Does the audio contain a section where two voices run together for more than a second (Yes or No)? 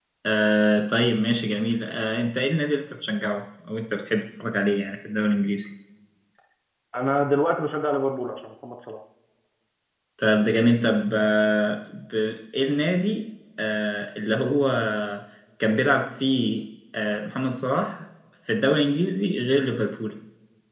No